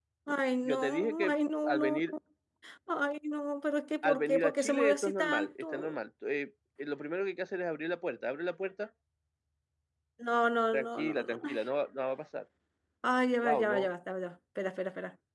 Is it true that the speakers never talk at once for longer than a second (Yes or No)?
No